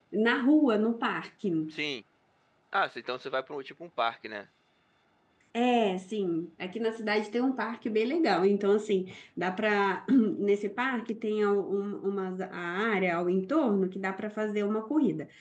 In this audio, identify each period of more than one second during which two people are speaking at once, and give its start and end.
none

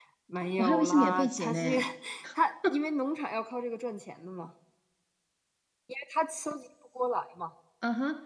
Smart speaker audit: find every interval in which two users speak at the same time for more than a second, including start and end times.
0.6-1.8

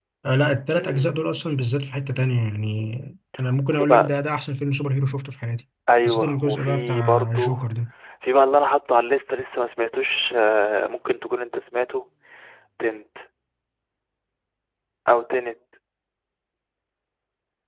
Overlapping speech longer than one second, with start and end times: 6.0-7.5

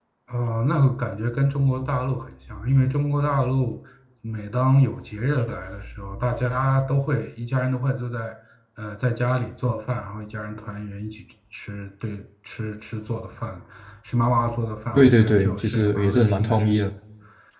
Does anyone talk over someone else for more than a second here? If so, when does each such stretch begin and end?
14.9-16.8

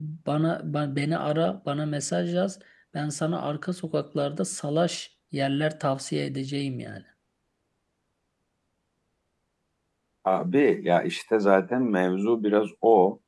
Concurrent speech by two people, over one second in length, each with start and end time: none

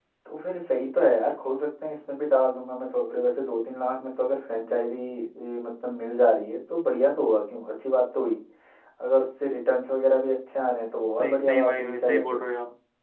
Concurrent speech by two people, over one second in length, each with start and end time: 11.2-12.5

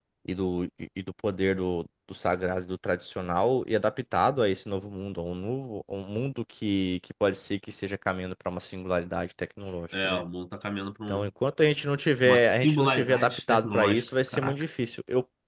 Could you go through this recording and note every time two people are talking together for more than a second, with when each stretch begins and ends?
12.2-14.5

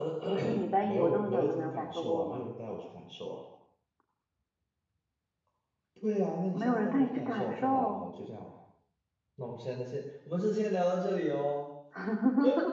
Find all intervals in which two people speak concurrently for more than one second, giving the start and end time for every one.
0.8-2.5, 6.5-8.0

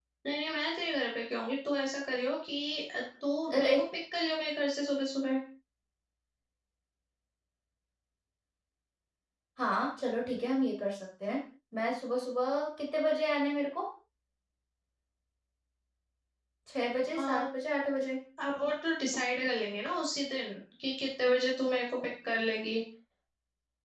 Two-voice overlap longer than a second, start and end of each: none

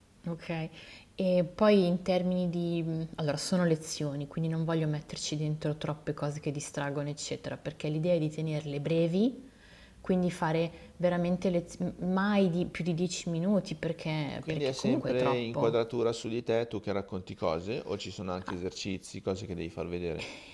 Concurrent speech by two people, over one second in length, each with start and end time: 14.5-15.8

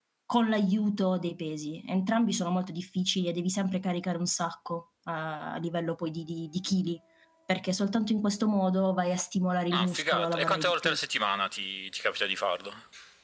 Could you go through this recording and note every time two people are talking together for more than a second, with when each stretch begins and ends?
9.7-11.0

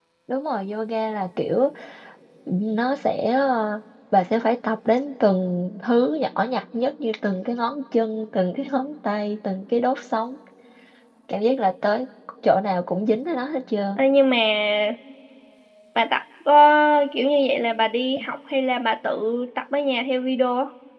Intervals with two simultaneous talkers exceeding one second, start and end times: none

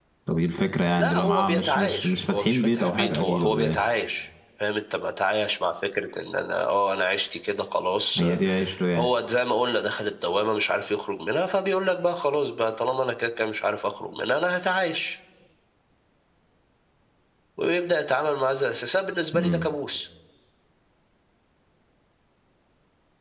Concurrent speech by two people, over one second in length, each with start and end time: 1.0-3.8

